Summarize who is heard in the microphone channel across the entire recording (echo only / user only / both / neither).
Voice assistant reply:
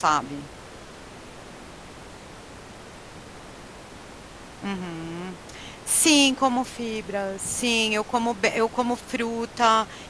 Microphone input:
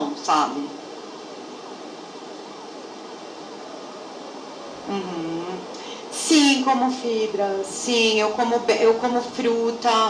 echo only